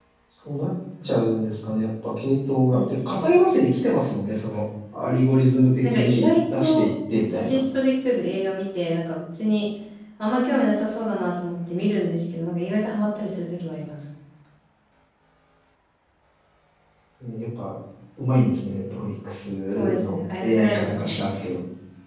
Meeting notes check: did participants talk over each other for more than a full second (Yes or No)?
Yes